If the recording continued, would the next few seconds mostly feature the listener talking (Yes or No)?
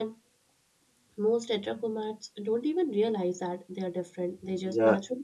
Yes